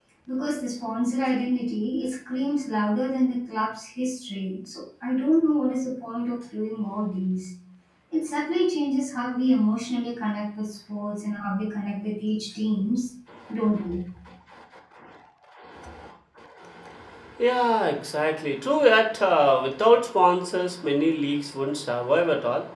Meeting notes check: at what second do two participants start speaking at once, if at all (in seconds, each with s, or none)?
none